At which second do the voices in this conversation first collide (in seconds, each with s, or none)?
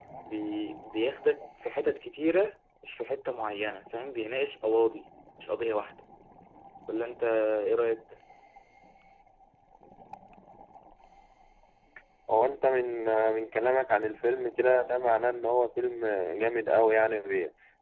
none